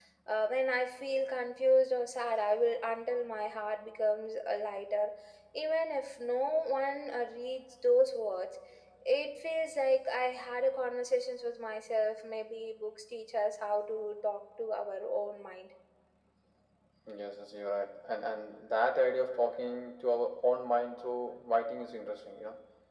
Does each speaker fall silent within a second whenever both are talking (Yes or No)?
Yes